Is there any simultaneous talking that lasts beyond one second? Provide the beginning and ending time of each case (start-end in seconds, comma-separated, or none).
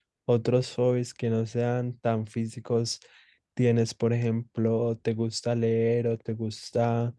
none